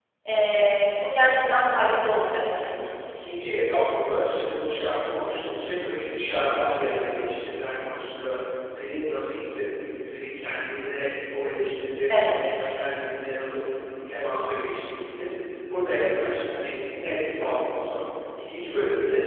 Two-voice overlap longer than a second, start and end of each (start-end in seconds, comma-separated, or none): none